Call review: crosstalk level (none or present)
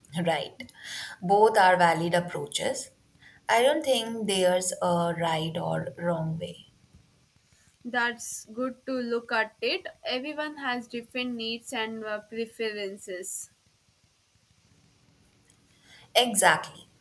none